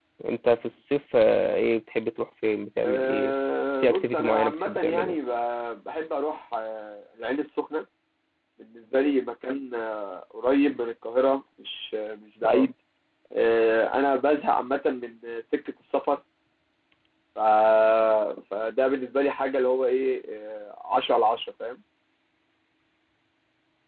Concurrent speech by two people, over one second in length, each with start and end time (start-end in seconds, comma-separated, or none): 3.8-5.2